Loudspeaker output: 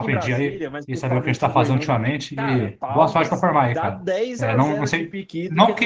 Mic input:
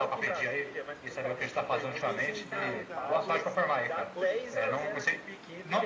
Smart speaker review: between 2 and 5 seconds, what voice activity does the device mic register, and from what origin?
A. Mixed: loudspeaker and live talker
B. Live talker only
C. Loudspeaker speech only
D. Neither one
A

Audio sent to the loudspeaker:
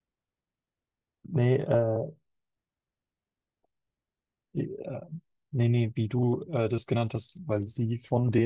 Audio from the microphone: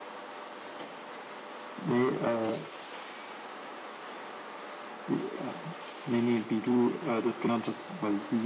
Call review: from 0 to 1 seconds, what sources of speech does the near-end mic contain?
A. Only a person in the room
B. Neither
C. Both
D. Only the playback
B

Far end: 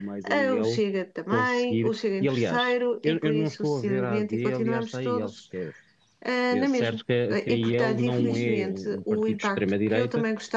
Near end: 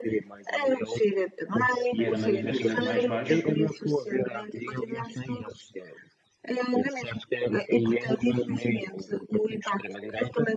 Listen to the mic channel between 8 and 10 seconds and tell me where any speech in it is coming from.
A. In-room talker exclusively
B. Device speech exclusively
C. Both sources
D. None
B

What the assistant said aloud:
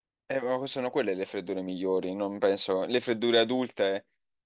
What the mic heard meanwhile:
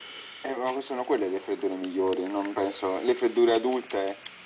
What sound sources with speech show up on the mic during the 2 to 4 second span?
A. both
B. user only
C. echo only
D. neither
C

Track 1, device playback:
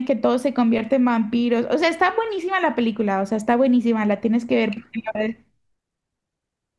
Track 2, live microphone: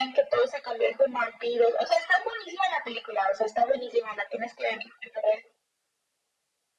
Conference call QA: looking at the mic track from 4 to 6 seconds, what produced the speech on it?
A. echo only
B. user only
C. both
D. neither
A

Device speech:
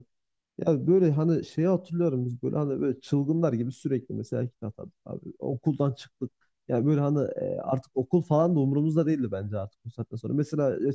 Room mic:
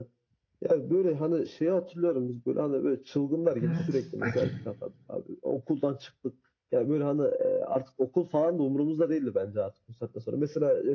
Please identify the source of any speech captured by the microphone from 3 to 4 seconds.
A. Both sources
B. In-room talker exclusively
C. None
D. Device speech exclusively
A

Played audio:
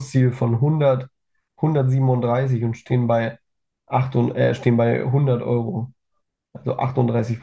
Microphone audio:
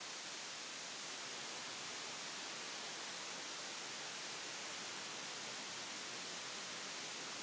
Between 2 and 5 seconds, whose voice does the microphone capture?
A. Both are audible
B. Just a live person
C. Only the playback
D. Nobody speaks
D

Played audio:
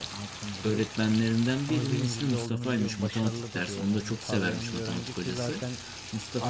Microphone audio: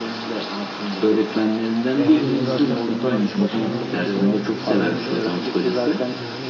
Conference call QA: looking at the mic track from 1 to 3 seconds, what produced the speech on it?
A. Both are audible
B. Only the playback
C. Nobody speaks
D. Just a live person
A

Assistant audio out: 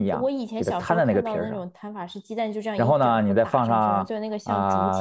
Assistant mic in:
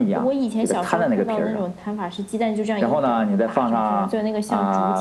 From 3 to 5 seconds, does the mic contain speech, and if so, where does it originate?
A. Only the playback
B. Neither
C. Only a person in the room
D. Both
A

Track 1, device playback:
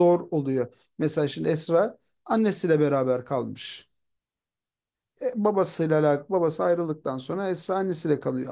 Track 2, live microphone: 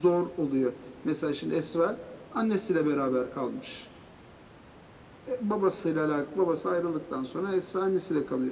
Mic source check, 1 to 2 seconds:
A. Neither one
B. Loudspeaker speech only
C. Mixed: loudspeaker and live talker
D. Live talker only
B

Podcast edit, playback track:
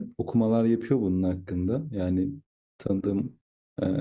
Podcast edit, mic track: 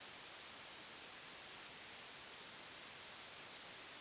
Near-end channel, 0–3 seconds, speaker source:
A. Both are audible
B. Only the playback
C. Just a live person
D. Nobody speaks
D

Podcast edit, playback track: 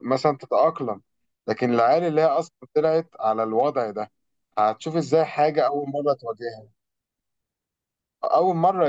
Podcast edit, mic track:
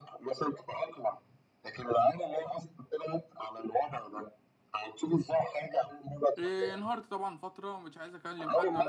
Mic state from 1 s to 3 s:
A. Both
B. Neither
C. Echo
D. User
C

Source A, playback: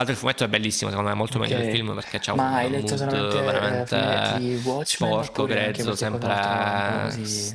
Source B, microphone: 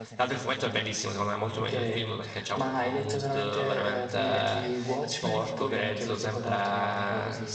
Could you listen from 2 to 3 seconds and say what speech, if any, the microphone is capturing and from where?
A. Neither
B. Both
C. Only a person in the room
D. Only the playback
D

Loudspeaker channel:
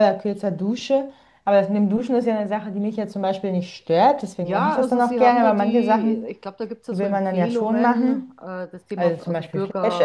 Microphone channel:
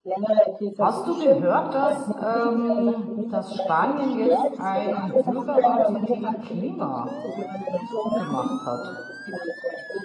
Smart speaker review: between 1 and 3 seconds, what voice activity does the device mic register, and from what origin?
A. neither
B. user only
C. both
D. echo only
C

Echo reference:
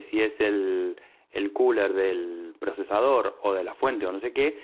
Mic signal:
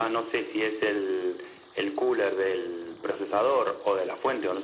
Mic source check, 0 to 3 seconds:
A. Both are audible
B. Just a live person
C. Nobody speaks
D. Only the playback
D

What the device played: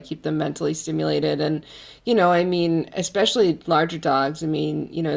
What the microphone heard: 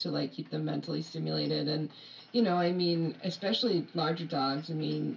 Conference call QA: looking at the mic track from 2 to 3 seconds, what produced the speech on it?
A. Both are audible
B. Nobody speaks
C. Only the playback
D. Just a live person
C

